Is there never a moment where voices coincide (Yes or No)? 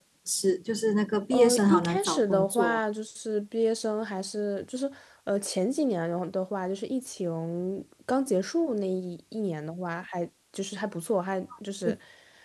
No